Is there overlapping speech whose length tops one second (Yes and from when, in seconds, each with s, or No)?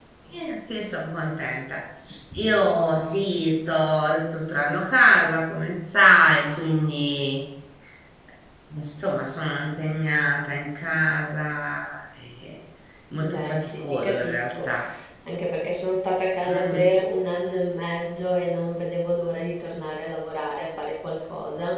Yes, from 13.2 s